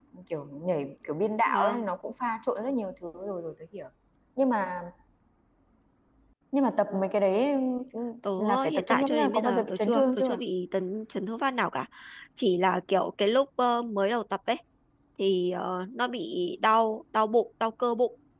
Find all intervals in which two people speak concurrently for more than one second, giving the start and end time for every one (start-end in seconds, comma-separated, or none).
8.6-10.4